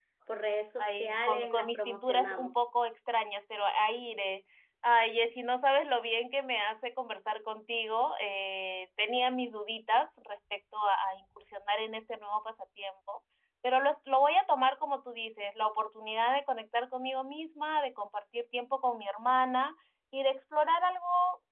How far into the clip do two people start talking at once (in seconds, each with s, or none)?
0.8 s